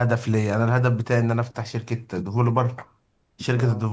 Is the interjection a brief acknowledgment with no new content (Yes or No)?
Yes